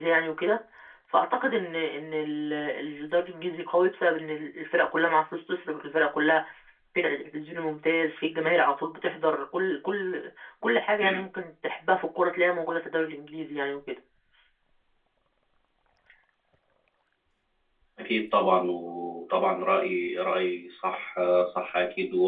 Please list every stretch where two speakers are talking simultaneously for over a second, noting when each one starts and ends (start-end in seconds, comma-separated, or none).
none